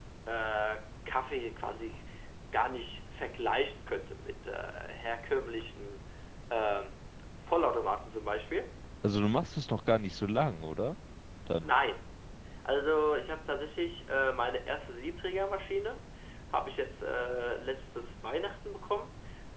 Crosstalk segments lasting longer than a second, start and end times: none

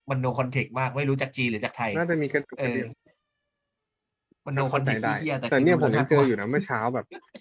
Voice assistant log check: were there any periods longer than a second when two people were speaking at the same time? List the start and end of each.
4.6-6.2

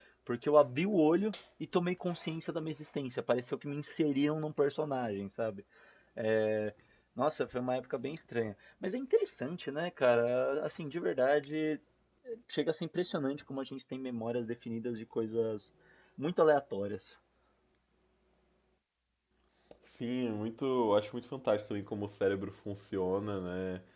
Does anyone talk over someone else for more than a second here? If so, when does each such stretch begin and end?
none

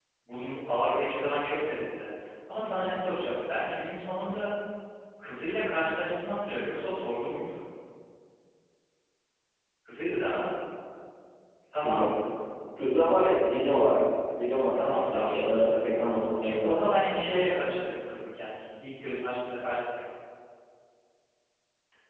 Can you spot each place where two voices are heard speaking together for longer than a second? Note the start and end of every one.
14.7-16.7

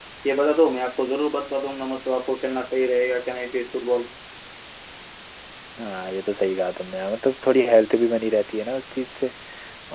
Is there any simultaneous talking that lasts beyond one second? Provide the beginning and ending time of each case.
none

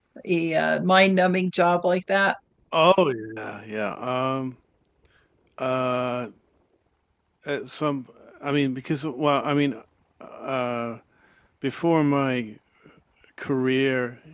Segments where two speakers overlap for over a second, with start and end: none

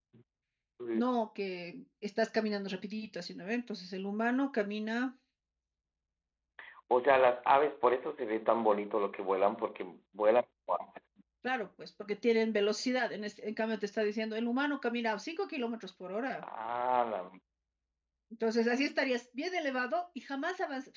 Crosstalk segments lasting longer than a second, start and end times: none

